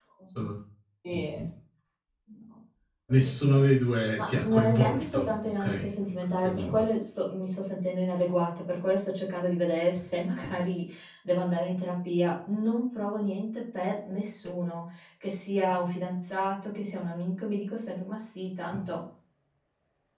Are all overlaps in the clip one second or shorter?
No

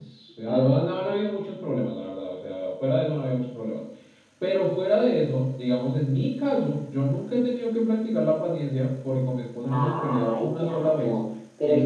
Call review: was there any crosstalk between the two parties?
Yes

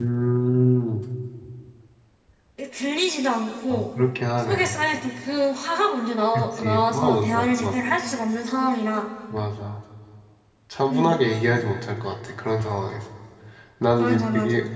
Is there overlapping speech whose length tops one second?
Yes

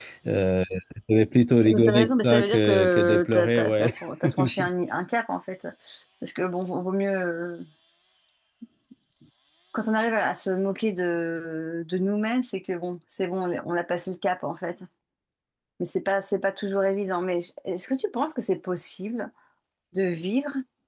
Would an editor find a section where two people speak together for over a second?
Yes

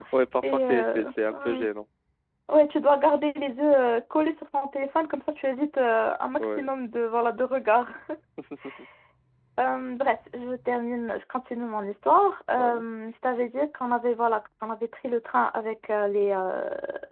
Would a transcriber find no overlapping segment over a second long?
No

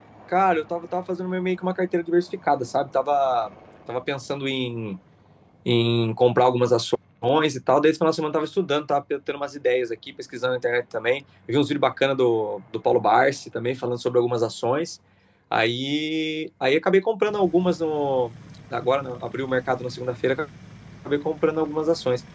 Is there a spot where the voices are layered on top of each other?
No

